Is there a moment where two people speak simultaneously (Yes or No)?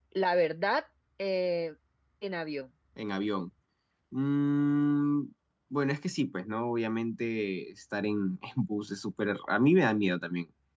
No